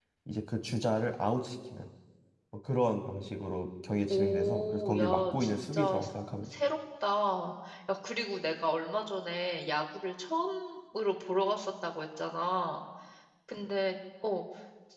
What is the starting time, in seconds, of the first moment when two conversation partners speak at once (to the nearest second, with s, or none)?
4 s